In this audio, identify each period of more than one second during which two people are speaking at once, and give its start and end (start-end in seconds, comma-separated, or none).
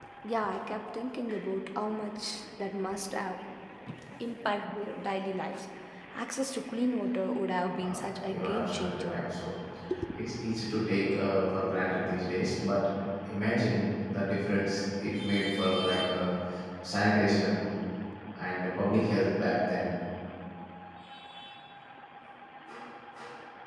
7.7-9.2